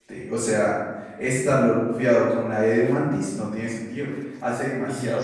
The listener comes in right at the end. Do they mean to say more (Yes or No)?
Yes